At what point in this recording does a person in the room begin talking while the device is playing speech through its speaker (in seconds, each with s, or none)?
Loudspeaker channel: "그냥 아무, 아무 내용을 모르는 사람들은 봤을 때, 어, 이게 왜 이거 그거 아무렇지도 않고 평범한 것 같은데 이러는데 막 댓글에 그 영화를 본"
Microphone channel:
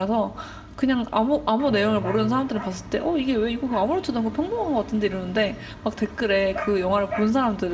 1.6 s